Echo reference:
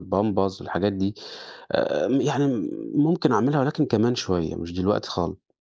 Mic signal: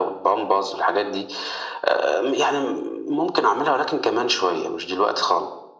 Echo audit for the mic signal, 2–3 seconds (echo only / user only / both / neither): echo only